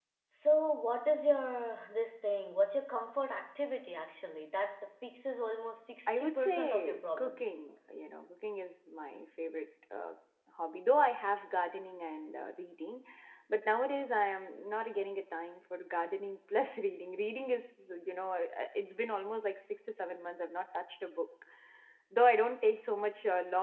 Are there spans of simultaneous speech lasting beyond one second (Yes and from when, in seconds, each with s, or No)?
Yes, from 6.1 s